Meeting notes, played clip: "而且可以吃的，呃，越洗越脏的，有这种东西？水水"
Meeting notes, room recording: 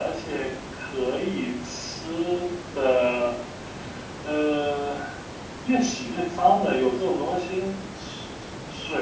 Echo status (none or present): present